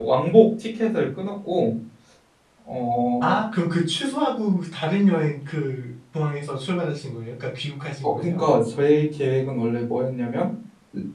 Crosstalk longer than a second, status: none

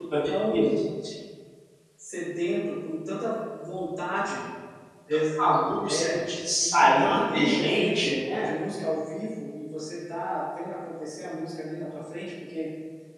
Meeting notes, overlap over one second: present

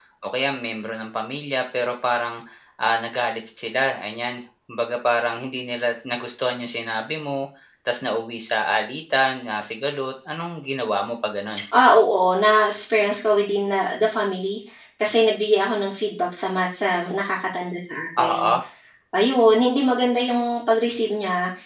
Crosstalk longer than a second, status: none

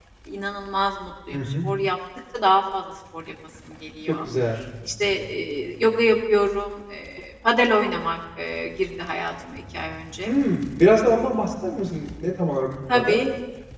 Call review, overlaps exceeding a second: none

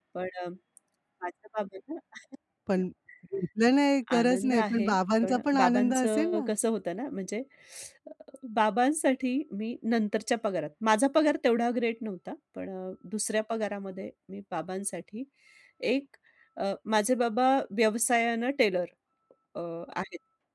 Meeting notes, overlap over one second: present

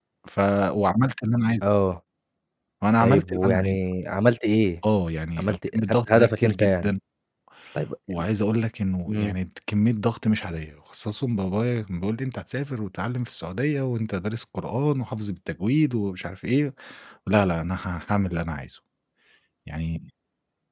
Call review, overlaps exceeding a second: present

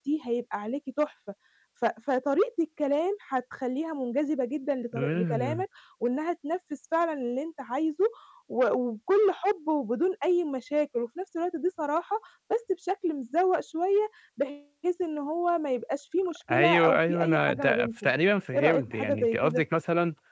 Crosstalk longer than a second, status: present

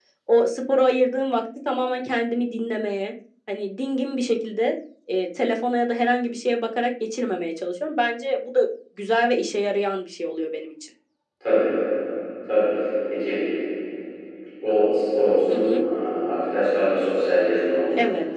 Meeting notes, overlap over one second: none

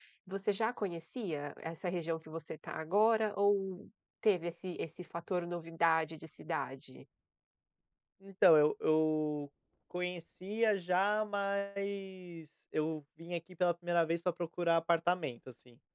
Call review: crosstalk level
none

